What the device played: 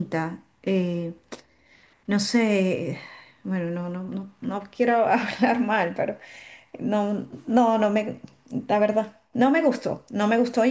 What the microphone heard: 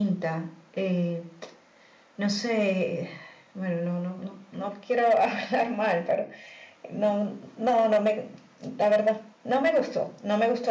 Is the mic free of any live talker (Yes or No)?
Yes